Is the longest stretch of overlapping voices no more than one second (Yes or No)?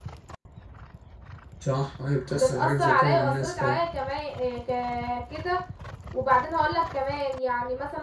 No